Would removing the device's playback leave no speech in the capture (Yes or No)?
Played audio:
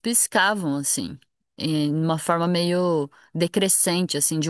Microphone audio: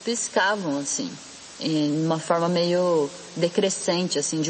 Yes